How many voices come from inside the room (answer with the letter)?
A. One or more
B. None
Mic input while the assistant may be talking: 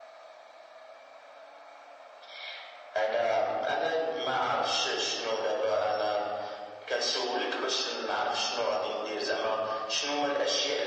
B